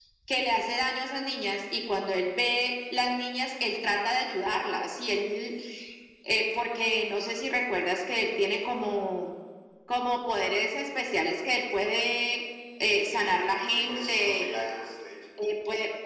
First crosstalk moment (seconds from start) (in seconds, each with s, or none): 13.0 s